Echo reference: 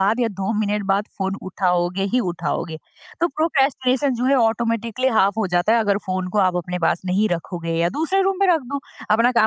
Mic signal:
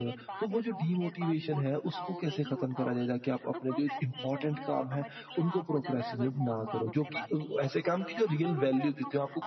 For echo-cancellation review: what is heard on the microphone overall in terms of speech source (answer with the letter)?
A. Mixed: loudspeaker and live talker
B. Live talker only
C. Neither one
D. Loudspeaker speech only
A